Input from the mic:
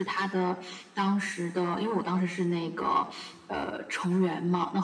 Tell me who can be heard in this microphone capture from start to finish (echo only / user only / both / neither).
echo only